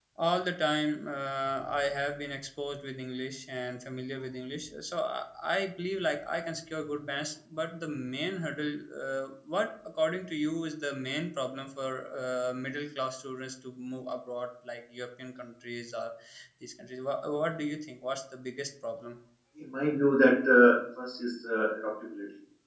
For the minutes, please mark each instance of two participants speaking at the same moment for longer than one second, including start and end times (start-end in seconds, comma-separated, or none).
none